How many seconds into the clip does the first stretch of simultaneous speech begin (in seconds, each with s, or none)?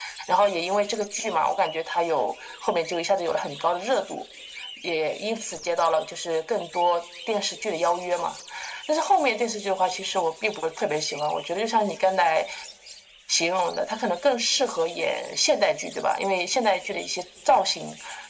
none